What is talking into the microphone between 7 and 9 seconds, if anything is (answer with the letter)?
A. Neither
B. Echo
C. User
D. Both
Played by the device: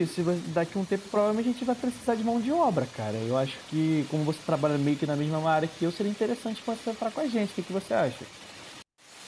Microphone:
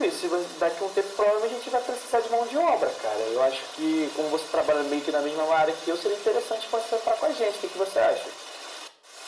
B